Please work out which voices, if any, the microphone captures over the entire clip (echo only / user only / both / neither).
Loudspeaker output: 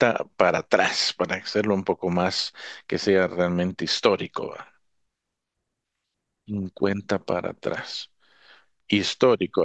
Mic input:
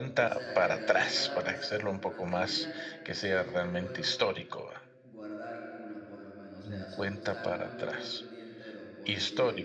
both